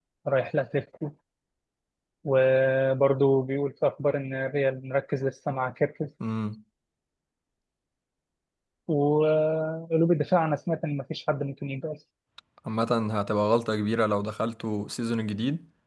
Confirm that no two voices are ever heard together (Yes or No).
Yes